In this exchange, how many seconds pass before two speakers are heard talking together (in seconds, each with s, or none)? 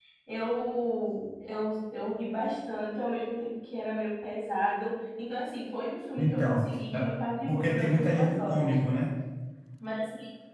6.2 s